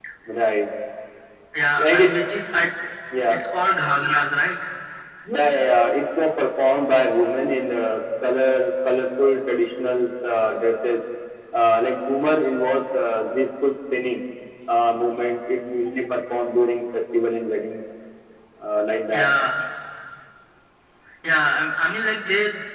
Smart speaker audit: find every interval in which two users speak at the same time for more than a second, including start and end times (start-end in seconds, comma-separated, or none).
none